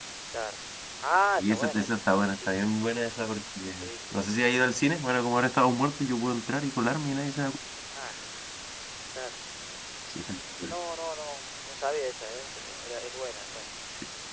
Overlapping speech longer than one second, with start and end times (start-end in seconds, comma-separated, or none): 1.4-2.6